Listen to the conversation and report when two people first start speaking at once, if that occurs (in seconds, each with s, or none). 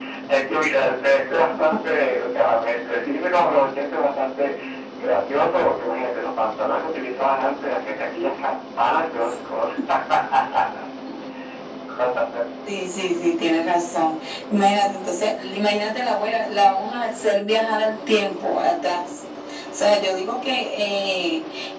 none